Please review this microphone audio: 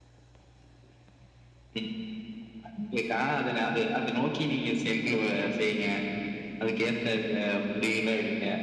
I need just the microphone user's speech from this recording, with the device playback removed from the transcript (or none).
none